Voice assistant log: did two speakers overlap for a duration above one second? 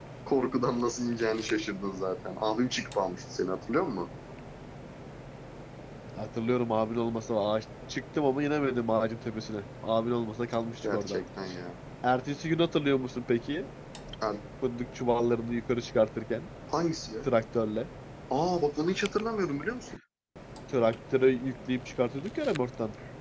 No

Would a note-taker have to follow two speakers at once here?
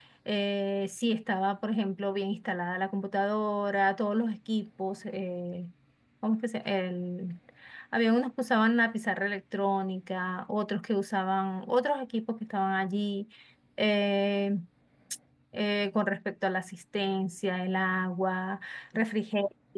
No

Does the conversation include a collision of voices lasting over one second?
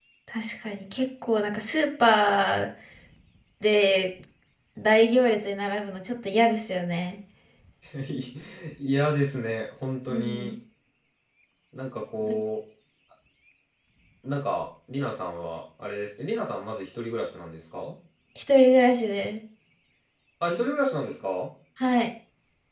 No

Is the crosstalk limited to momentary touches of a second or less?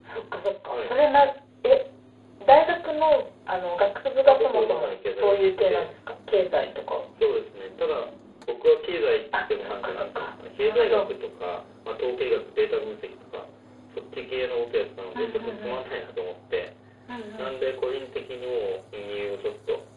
No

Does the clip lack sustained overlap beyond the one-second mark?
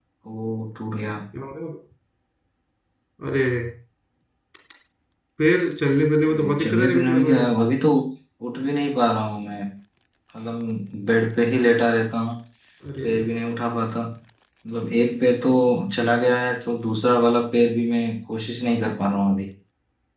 No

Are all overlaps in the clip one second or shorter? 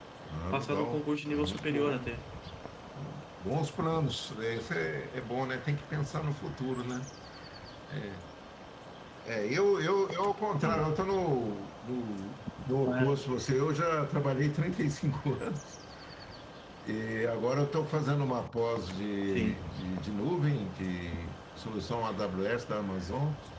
No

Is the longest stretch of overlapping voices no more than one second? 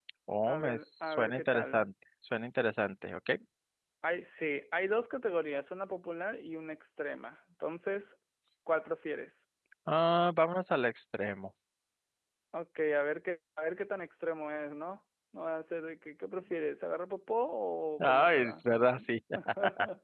No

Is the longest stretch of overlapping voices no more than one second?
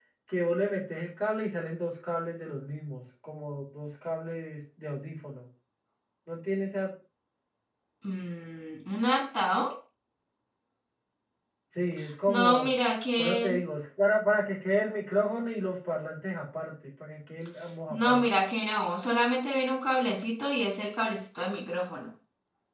Yes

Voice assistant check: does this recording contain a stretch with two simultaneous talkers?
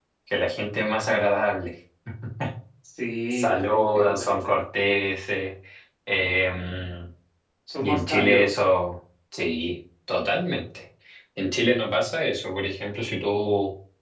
Yes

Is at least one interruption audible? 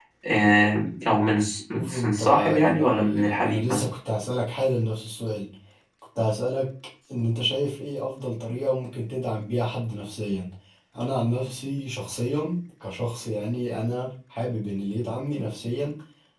Yes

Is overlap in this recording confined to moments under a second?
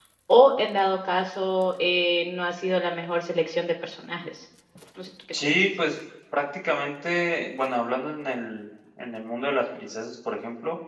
Yes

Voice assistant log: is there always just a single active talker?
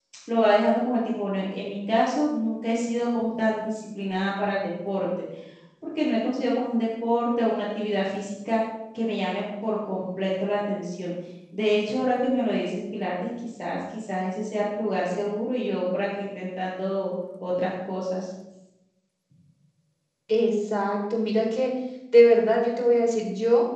Yes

